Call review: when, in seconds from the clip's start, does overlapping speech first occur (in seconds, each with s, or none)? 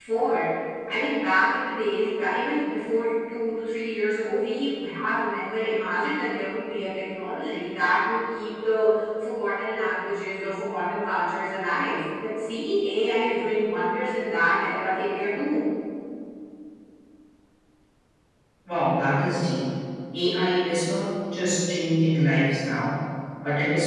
none